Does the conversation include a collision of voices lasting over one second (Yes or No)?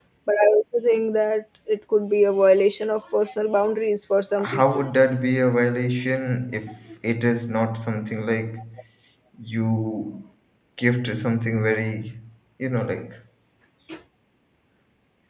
No